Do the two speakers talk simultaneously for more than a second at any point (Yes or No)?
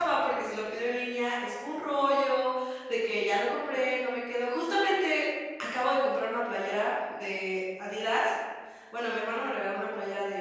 No